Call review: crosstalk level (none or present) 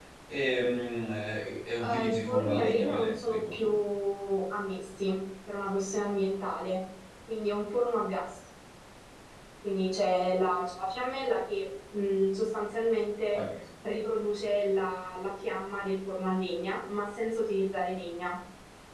present